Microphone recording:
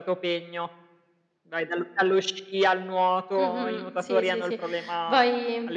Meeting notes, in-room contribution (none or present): present